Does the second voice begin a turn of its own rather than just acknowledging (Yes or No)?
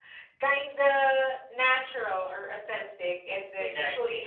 No